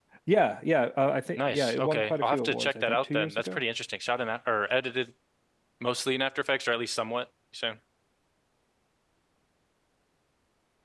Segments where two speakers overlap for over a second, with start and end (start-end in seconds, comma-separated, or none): 1.4-3.6